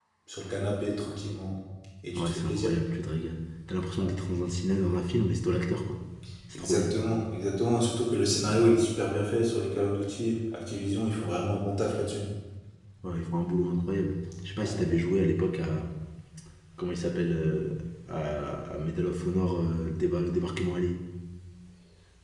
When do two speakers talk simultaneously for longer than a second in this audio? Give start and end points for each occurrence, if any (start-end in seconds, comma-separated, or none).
none